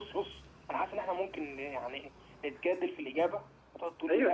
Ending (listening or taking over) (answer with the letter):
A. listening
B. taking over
B